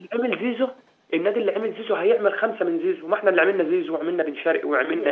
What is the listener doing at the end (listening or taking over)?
taking over